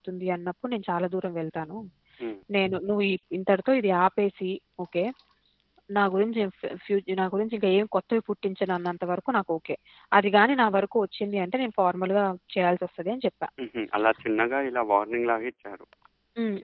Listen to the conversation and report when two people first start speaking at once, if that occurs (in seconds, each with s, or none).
none